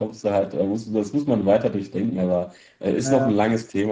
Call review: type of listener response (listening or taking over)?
listening